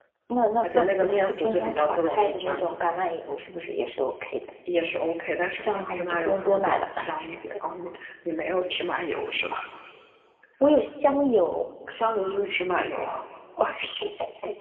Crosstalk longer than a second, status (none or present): present